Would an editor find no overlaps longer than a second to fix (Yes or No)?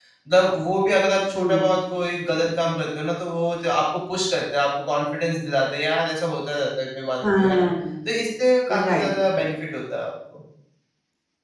Yes